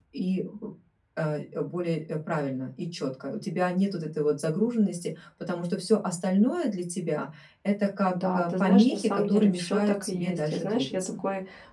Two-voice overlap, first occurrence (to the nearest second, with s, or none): 8 s